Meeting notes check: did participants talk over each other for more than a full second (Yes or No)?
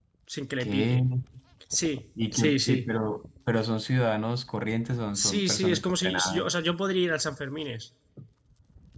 Yes